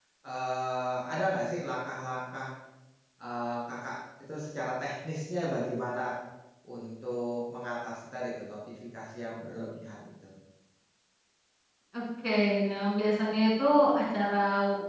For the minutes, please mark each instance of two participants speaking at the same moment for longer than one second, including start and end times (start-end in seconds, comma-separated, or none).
none